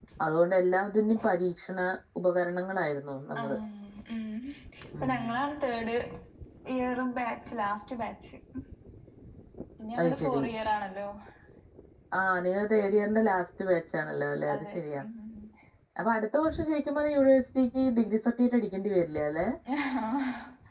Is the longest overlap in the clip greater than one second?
No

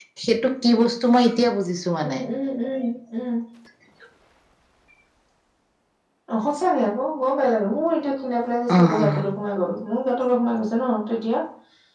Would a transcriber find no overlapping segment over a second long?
Yes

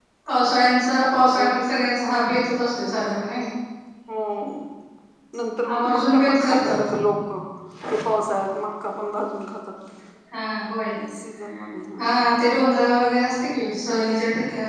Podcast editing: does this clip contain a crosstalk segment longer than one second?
Yes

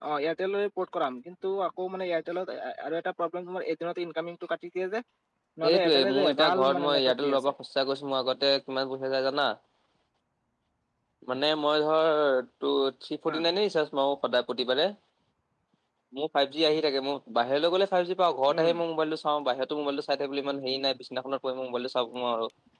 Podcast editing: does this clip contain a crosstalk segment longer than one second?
Yes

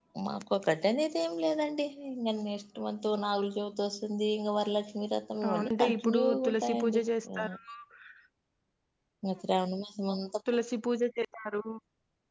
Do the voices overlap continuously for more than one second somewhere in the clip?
Yes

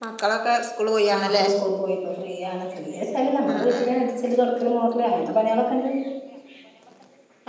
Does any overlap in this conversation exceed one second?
No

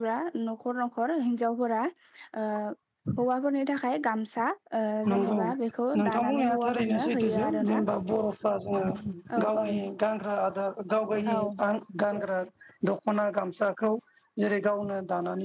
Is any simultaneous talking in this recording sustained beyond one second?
Yes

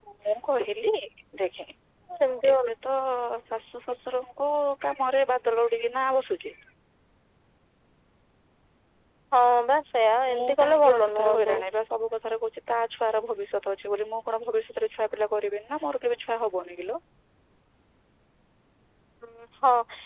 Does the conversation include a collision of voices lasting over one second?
Yes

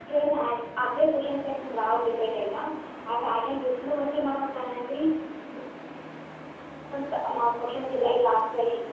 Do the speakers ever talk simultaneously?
No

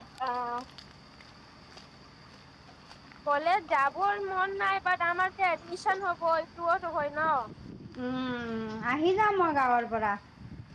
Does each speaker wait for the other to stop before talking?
Yes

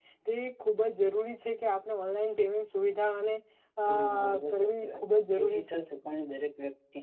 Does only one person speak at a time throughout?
No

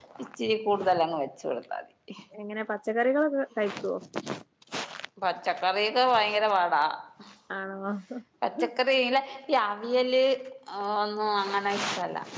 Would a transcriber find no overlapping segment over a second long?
Yes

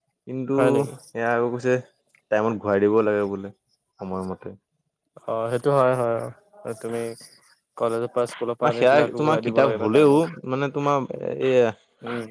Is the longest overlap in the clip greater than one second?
Yes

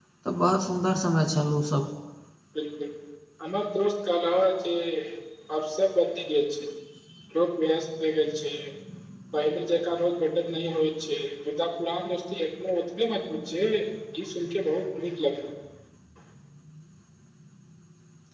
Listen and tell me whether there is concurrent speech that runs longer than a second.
No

